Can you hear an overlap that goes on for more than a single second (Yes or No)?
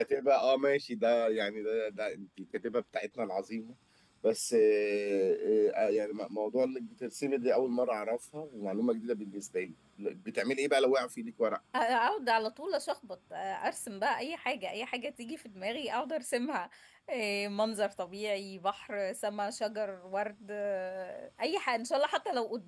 No